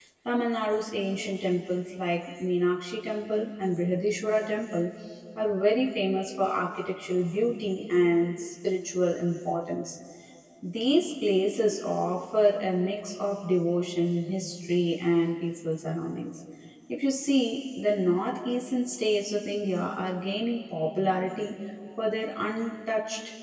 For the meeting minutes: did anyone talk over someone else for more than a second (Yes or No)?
No